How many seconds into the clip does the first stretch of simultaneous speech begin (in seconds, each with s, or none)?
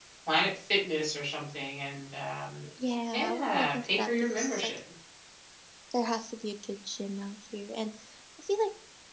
3.1 s